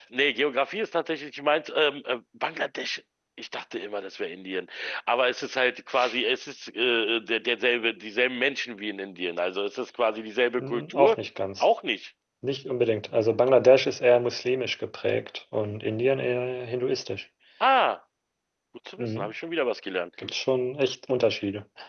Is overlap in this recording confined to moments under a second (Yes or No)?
Yes